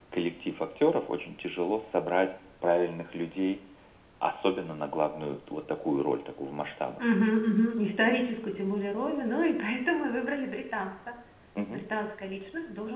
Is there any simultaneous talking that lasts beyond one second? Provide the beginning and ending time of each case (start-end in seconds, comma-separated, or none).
none